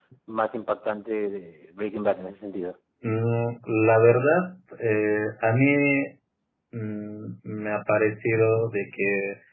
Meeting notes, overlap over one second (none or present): none